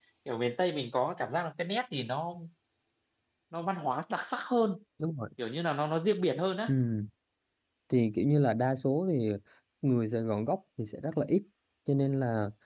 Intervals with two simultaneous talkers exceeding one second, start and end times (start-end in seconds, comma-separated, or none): none